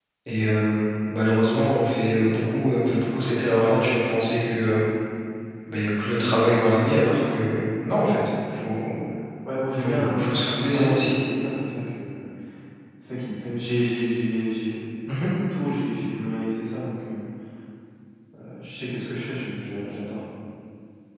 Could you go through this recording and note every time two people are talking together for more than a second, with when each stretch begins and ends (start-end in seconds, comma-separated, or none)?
9.8-11.1